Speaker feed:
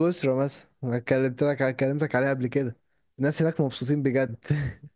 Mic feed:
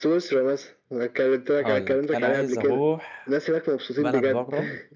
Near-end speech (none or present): present